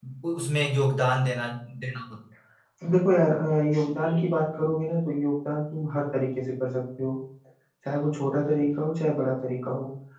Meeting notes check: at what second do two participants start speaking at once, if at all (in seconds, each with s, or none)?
none